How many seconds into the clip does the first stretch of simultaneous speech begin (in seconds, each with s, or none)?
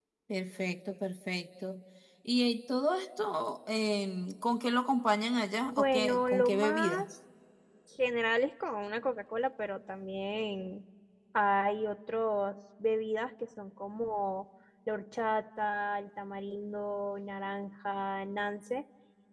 5.6 s